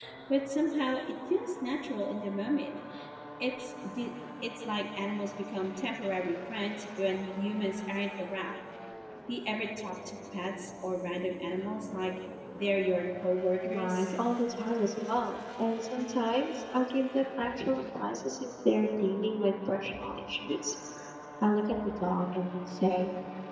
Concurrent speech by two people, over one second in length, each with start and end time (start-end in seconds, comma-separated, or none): none